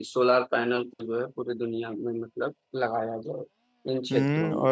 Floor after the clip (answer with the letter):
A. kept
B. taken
B